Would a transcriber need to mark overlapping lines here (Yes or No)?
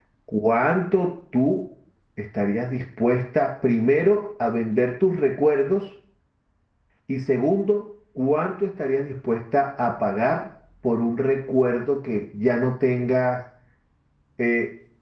No